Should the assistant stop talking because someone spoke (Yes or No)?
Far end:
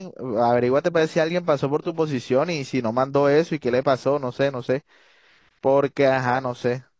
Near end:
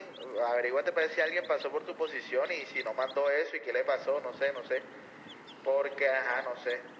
No